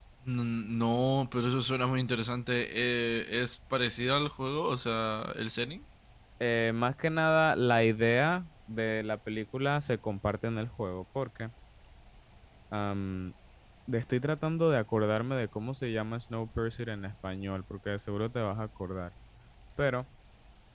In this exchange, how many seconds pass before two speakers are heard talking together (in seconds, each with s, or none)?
none